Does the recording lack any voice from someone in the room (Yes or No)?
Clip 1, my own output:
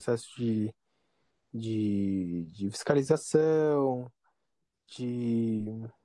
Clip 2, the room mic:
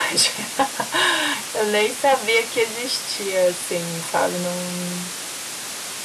No